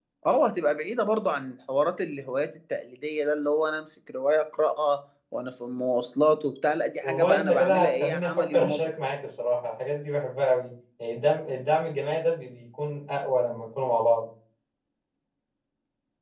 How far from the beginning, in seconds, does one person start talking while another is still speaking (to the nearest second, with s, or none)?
7 s